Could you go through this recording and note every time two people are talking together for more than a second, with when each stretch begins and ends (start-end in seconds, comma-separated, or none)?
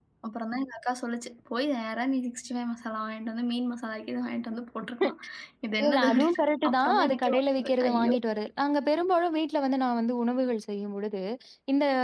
5.9-8.1